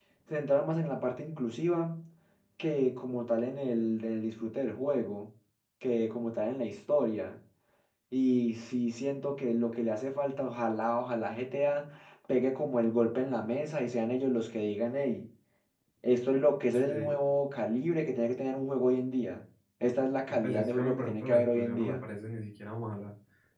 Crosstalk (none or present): present